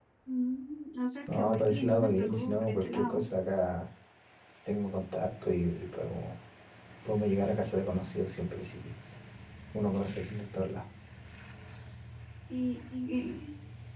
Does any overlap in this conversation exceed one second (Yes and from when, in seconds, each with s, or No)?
Yes, from 1.3 s